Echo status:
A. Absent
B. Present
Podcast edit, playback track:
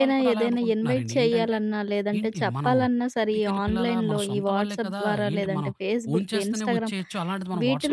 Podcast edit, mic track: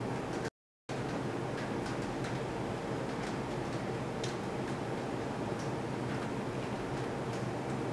A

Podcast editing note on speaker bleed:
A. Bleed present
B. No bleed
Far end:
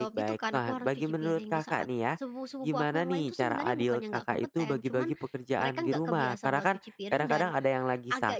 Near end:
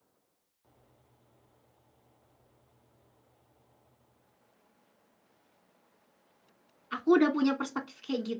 B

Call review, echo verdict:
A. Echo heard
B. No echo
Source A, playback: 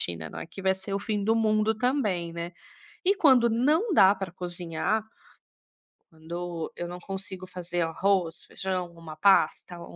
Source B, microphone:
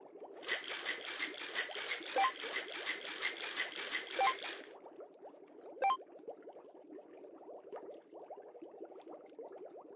B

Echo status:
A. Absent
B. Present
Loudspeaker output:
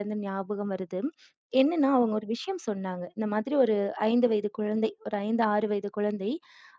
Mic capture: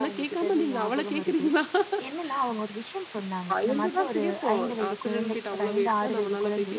B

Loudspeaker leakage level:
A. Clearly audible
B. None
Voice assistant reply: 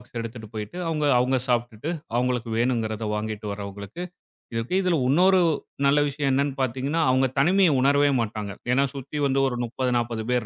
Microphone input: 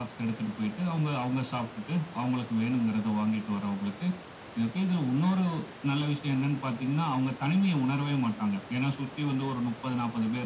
A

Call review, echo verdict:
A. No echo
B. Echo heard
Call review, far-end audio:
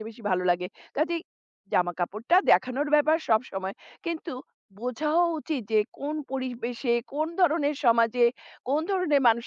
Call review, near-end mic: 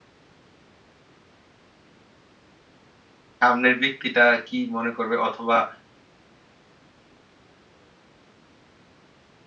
A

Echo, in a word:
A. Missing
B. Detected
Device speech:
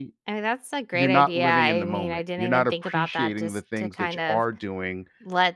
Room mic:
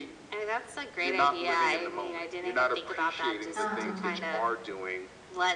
B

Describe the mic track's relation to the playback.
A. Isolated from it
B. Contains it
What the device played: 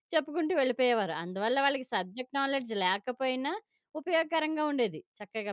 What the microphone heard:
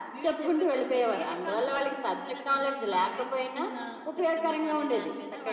B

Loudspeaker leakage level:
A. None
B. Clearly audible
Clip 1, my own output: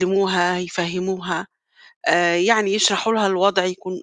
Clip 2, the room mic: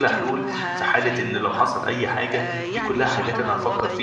B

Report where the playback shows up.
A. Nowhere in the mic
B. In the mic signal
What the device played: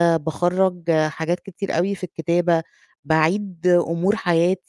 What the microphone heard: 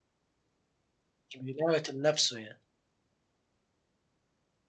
A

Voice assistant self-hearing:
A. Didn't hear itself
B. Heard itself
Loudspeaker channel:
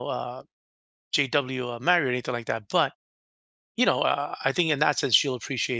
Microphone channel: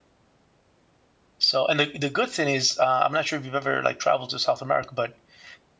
A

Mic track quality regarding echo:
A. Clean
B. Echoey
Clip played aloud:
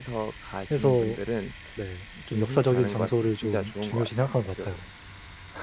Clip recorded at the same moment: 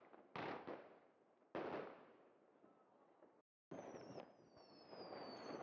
A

